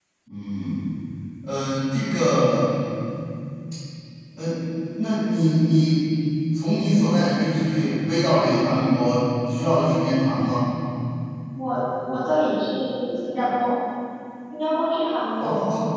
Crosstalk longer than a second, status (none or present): none